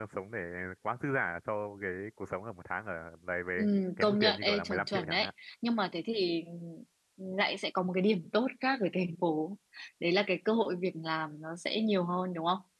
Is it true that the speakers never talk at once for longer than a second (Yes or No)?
No